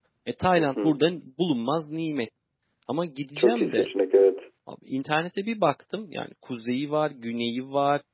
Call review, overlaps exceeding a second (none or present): none